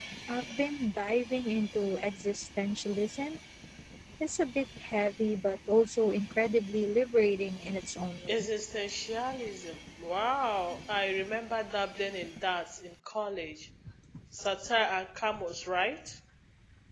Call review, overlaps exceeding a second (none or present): none